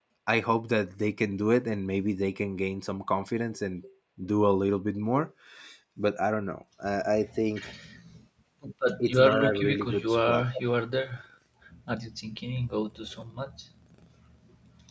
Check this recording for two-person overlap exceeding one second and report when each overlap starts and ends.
9.0-10.4

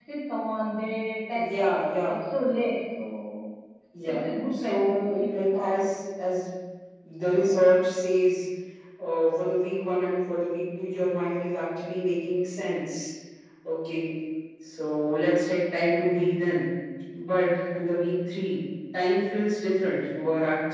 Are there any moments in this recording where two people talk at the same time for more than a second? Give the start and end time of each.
4.0-5.6

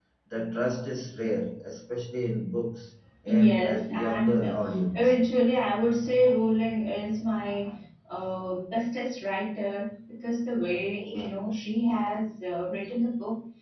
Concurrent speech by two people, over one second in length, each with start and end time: 3.3-4.6

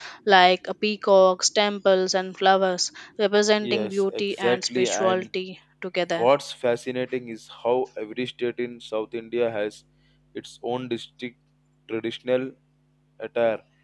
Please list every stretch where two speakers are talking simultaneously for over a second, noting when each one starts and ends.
3.6-5.2

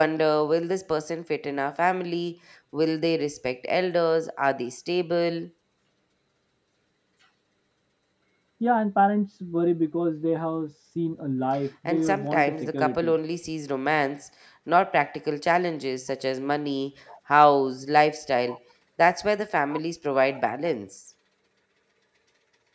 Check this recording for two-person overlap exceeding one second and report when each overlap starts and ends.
11.8-13.1

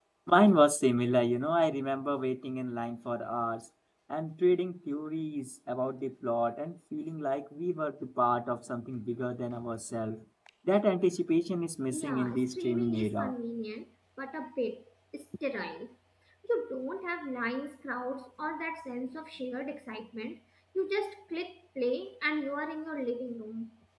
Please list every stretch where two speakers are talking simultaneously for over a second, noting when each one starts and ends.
11.9-13.3

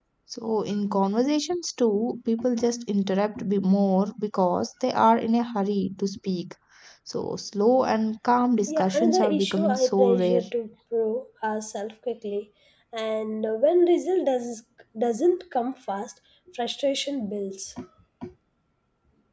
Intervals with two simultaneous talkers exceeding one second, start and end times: 8.7-10.4

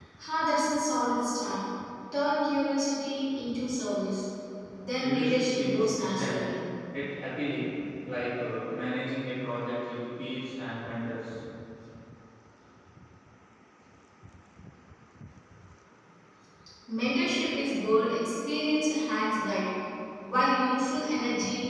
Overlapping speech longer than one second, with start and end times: 5.0-6.4

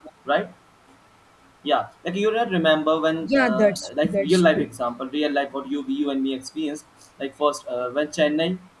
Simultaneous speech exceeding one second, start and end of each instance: 3.2-4.7

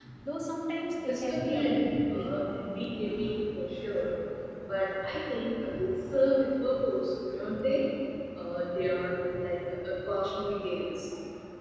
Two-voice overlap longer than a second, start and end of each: 1.1-2.3

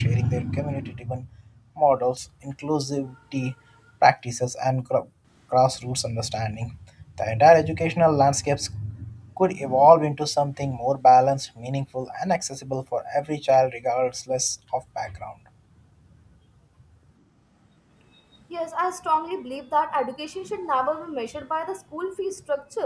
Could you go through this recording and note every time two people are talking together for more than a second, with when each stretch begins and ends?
none

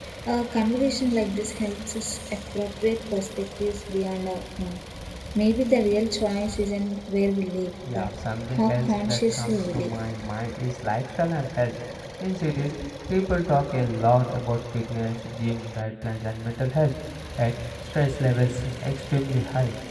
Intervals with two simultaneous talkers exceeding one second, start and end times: 8.5-9.9

